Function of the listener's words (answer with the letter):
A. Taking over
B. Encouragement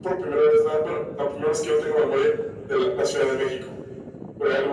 A